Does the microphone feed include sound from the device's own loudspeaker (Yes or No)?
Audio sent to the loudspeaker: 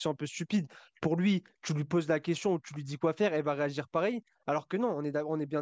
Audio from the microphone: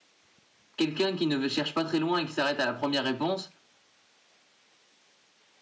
No